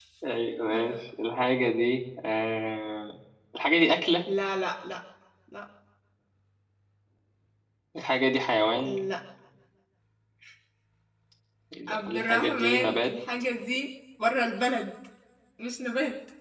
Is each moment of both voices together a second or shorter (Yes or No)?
No